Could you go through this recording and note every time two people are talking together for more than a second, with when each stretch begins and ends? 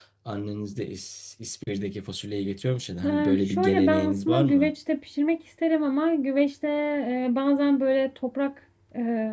3.0-4.7

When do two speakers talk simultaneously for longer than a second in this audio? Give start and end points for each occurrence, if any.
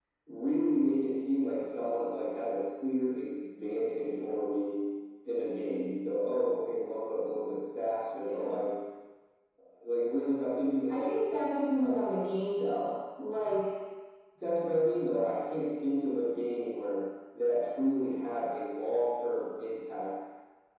none

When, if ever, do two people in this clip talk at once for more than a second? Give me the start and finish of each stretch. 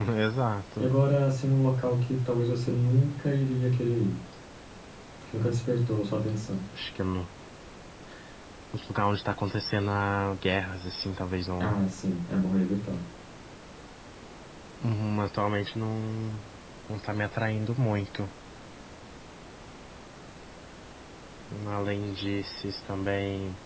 none

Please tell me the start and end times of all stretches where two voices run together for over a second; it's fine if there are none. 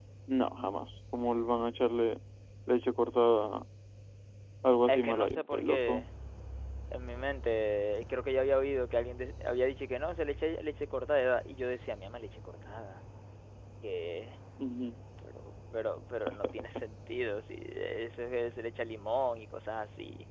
4.9-6.1

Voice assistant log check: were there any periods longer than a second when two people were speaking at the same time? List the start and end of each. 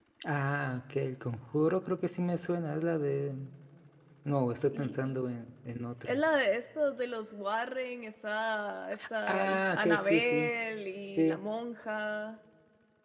9.3-10.5

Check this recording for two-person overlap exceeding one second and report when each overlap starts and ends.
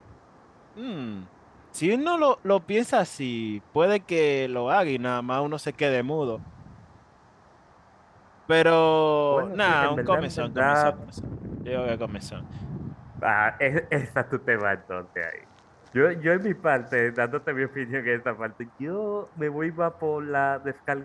9.3-11.0

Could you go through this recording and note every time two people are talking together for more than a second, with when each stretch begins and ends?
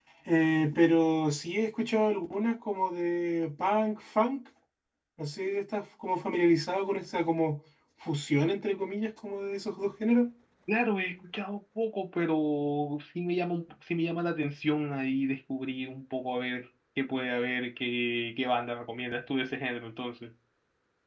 none

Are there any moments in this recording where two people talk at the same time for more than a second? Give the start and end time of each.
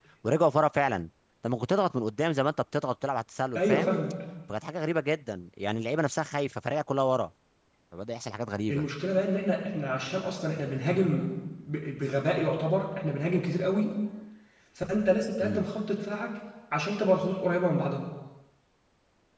none

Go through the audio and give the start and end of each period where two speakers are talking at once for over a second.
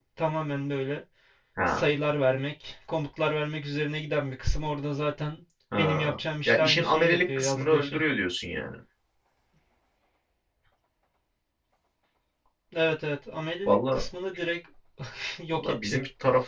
6.5-8.0

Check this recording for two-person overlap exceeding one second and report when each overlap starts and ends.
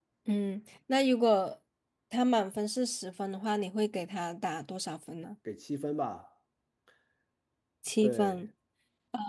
none

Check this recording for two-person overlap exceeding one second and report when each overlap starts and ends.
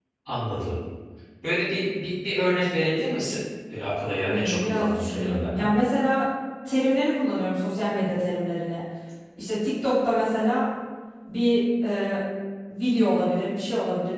4.3-5.7

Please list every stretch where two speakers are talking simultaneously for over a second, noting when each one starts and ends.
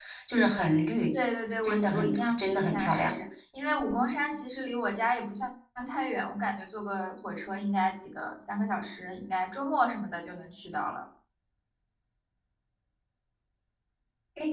1.6-3.1

